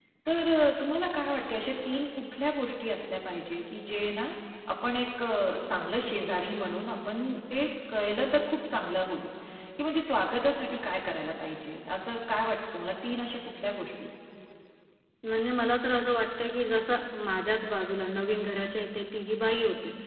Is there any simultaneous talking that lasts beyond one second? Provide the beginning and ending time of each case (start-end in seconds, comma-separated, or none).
none